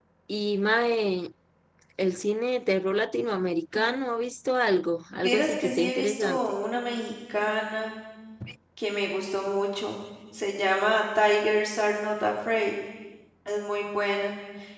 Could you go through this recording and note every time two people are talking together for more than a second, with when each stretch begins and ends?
5.1-6.4

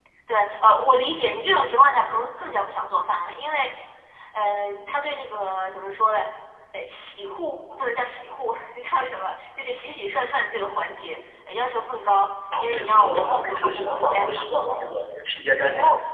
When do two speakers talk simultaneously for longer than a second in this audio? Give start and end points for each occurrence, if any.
12.6-14.4

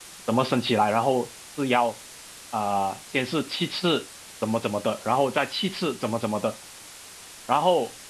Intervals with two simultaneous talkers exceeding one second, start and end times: none

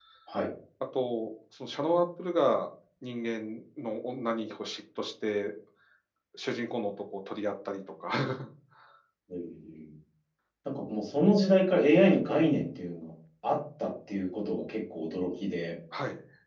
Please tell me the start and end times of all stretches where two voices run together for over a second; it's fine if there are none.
none

